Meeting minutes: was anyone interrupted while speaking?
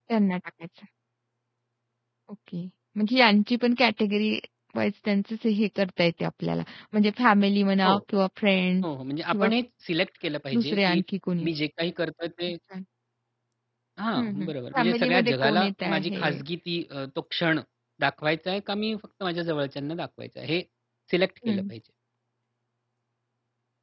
Yes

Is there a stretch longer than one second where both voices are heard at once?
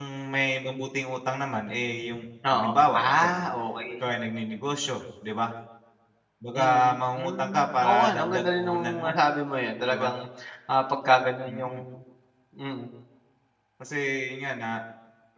Yes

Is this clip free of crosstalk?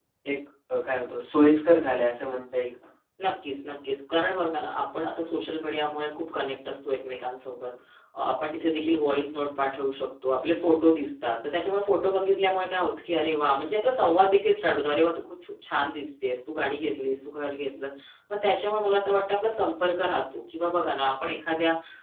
Yes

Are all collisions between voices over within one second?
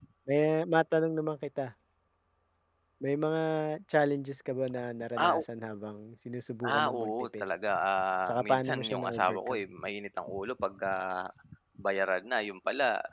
No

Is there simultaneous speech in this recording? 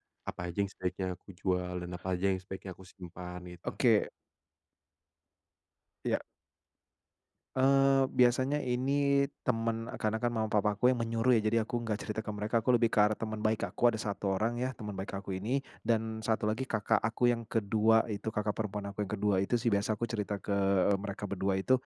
No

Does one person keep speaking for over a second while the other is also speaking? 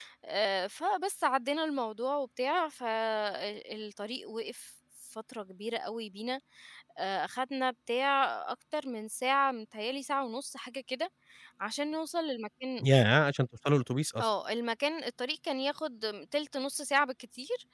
No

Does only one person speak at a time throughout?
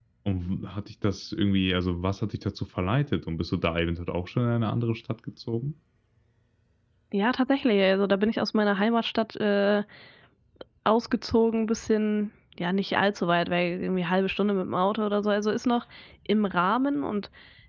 Yes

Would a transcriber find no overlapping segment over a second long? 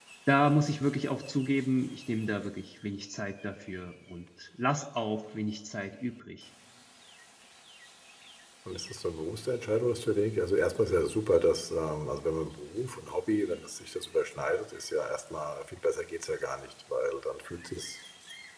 Yes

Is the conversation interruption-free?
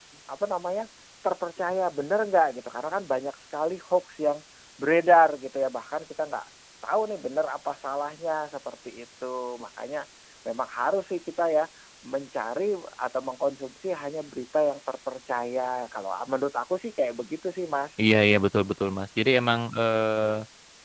Yes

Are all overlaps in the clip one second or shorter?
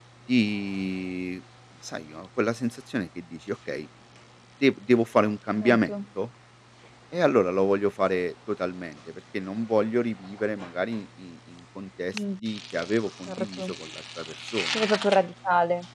Yes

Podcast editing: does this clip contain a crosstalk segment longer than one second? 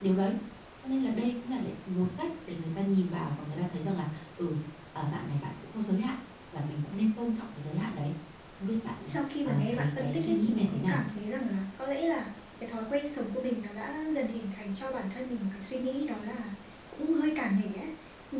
Yes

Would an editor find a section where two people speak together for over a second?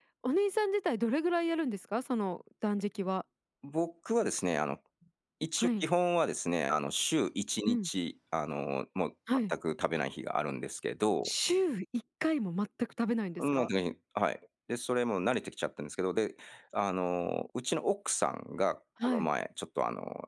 No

